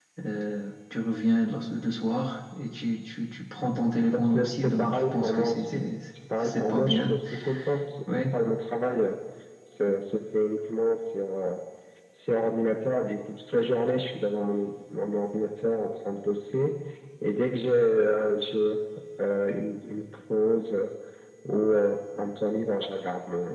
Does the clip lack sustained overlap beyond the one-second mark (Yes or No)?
No